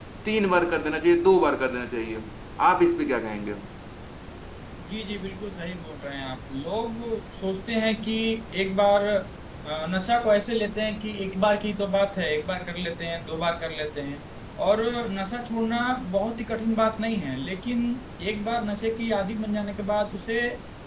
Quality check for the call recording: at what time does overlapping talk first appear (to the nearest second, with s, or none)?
none